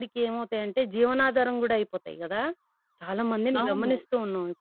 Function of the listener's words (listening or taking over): listening